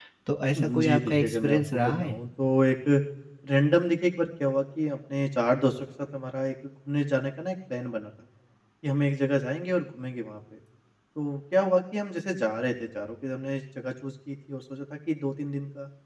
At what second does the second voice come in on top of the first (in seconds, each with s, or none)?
0.5 s